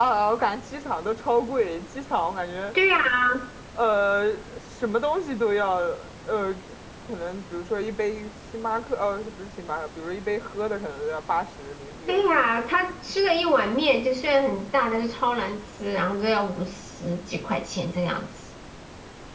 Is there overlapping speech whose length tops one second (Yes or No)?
No